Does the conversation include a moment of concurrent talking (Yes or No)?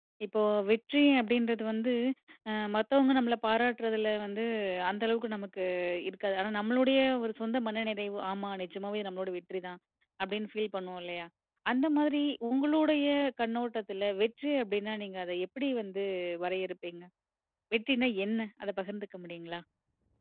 No